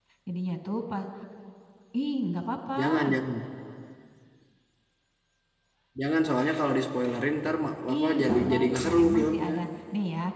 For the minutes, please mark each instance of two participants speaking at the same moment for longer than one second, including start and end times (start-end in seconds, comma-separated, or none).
7.9-9.5